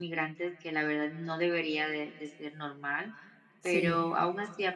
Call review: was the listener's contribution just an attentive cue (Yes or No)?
Yes